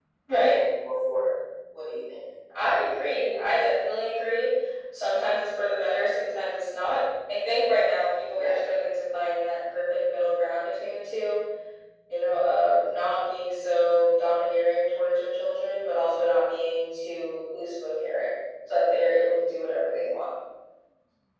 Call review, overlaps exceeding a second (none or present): none